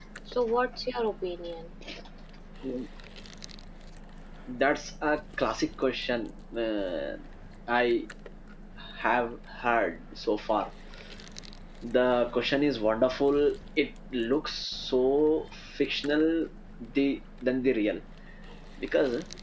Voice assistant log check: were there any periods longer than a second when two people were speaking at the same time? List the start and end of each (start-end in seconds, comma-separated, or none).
none